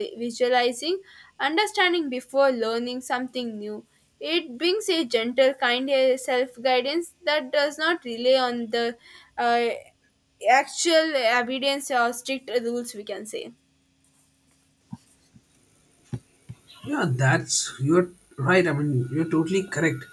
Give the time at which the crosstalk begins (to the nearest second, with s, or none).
none